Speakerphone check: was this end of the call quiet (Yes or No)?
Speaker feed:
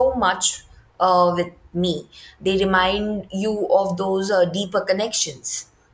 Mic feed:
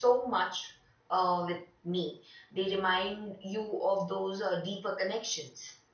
Yes